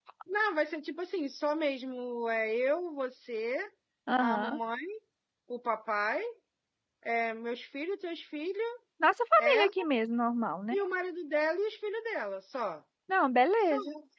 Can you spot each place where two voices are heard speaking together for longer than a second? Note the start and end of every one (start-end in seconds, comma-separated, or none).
none